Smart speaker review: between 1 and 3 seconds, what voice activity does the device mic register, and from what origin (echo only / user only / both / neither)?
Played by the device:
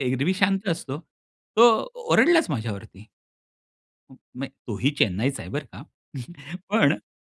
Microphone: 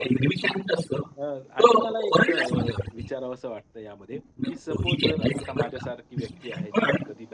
both